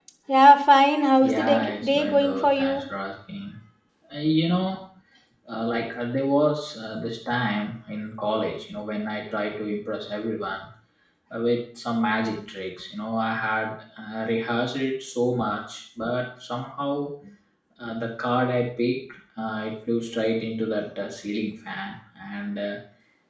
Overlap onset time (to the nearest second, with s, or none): 1 s